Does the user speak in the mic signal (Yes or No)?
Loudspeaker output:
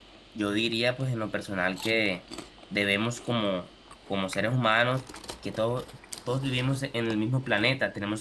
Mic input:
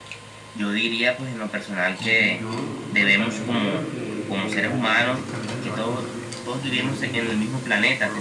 Yes